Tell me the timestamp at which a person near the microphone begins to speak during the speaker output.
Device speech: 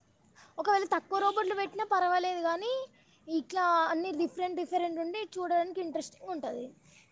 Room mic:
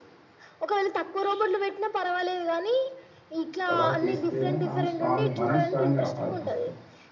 3.7 s

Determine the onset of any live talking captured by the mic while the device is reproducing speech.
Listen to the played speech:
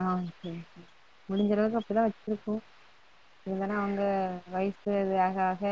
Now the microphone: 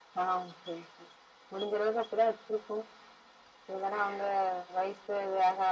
none

